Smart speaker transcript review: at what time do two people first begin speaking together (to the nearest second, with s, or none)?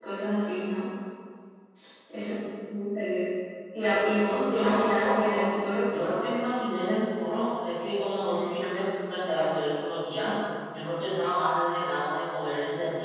4 s